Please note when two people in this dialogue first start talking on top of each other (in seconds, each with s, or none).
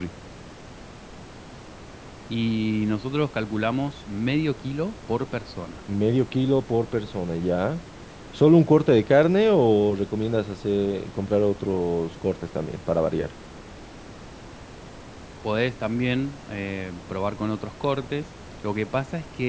none